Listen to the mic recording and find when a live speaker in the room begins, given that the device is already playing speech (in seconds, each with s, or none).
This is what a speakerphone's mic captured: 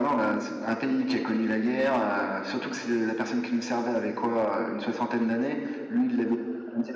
none